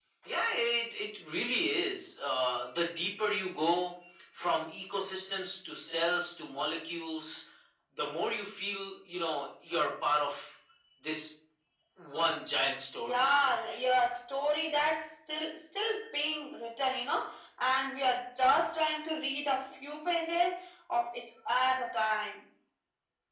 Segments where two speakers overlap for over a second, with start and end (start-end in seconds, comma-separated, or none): none